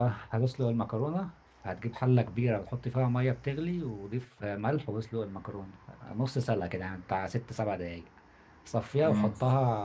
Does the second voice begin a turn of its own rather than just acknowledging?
No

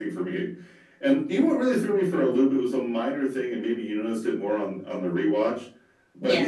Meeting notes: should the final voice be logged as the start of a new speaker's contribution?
No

